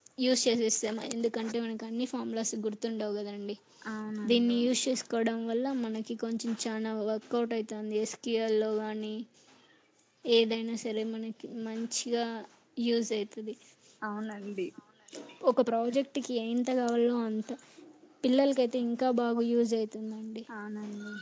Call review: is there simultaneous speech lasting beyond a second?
No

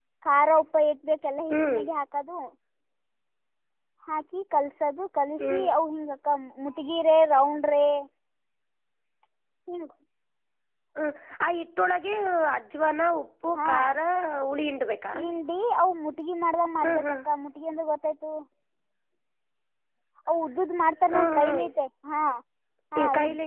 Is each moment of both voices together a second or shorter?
Yes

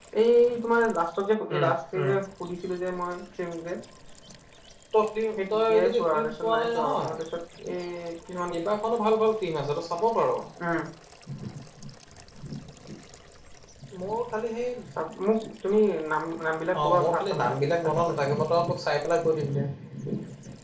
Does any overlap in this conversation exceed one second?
Yes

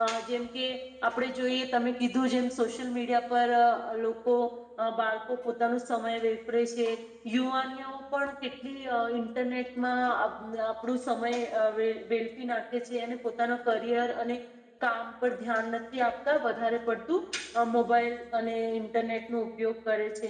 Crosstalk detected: No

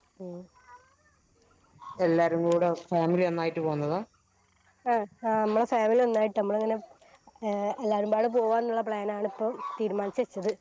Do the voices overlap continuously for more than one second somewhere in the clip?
No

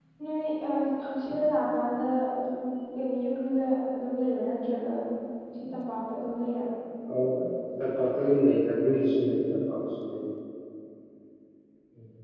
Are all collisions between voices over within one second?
Yes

